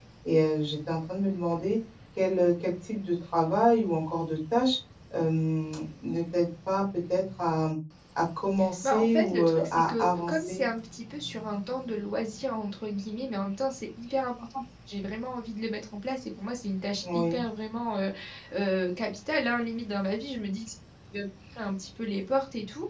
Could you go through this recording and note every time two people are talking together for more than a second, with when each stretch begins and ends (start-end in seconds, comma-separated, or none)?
8.8-10.6